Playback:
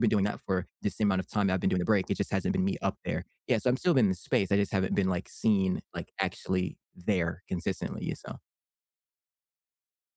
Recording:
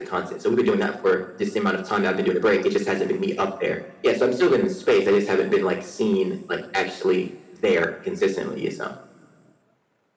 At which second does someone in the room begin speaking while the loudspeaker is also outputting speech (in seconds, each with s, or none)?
none